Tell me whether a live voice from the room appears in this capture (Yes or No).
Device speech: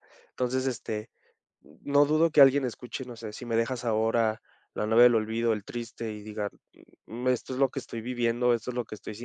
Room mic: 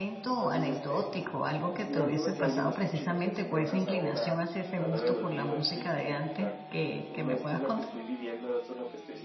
Yes